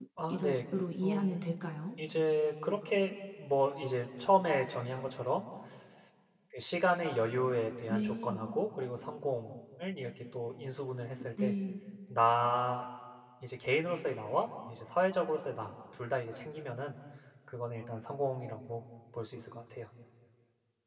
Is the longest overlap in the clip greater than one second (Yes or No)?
No